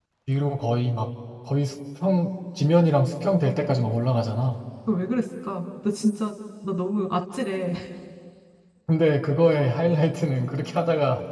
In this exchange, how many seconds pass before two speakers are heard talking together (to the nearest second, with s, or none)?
none